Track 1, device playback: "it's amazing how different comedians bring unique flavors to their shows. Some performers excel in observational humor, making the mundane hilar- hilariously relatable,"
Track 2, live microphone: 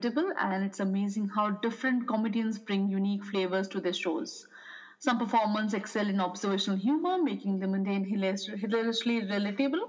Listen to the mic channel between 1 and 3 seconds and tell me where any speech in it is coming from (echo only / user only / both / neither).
echo only